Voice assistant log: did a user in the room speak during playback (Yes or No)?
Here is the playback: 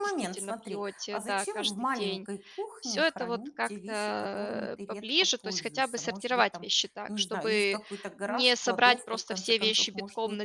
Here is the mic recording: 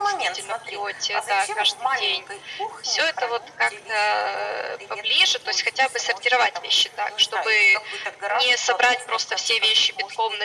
No